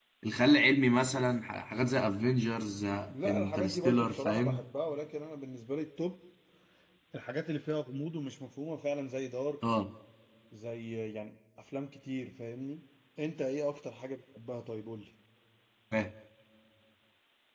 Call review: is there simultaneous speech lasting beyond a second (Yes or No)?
Yes